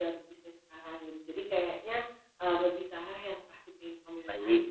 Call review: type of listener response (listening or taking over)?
taking over